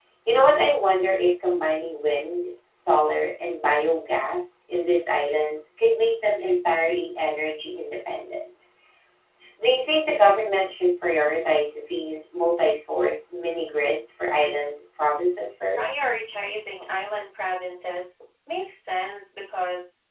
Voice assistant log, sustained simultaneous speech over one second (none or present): none